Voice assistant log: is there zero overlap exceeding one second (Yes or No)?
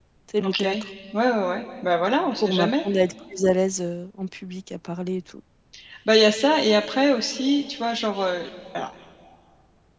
Yes